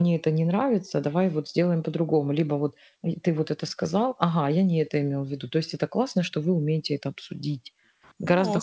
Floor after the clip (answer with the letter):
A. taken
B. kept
A